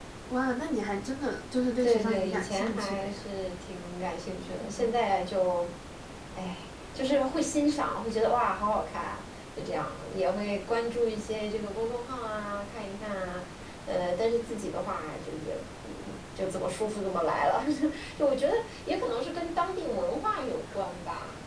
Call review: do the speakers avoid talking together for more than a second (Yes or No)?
No